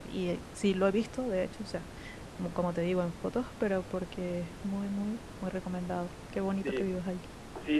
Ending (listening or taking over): taking over